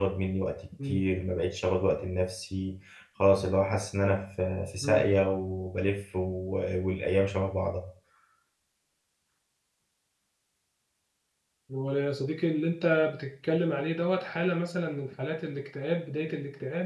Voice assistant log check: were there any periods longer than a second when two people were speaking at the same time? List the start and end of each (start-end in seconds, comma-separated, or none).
none